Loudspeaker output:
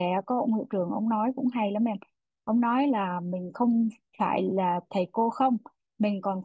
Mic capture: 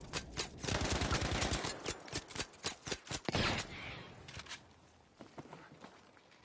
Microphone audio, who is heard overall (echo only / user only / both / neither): neither